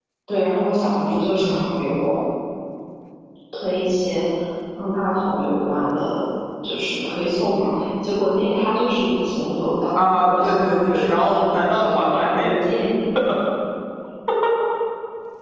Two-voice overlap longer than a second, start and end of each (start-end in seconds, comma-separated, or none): 9.9-12.6